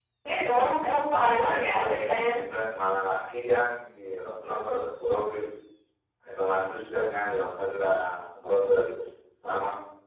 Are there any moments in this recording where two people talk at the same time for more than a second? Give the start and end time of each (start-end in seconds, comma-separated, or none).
1.1-2.4